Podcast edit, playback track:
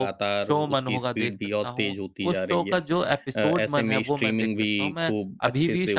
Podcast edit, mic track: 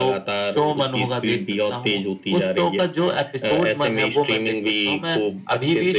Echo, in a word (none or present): present